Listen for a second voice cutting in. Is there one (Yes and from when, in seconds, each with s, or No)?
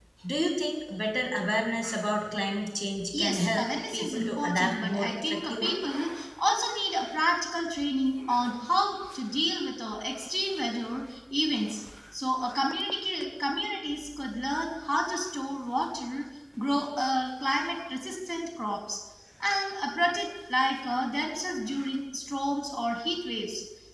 Yes, from 3.1 s